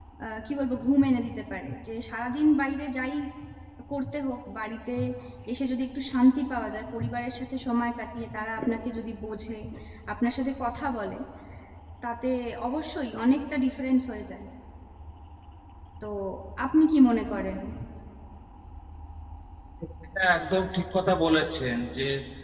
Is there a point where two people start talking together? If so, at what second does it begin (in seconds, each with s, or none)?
none